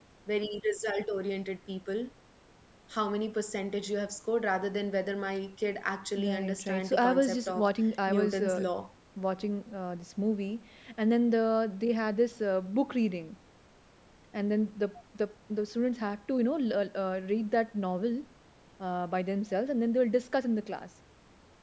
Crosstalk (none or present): present